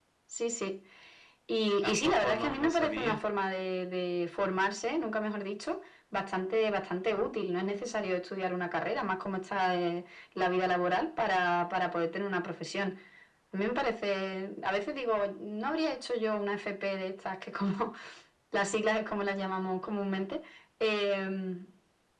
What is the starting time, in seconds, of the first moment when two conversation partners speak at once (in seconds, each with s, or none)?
1.8 s